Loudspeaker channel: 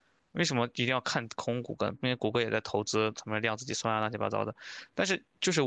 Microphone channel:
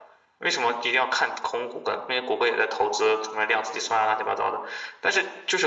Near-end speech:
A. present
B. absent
B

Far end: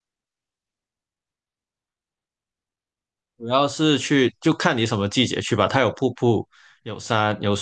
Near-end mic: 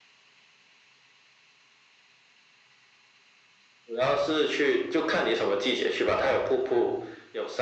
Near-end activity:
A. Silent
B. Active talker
A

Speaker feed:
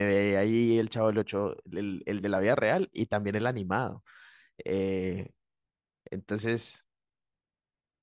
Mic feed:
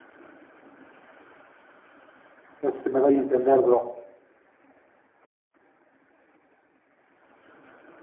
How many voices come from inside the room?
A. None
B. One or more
B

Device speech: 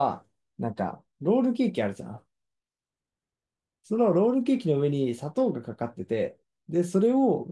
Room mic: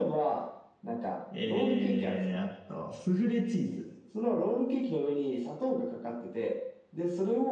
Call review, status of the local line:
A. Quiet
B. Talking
B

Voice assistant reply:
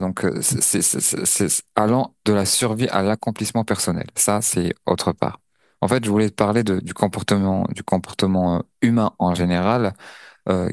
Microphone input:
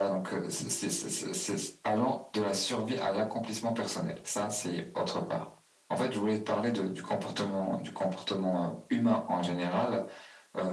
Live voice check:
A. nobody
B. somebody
A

